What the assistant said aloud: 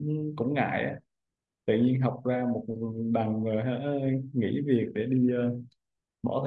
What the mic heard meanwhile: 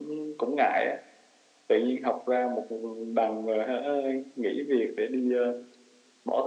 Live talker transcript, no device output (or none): none